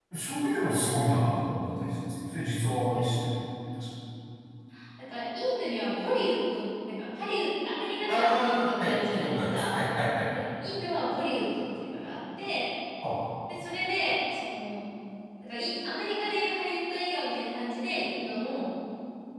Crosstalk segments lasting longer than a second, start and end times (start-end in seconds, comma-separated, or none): 8.1-9.7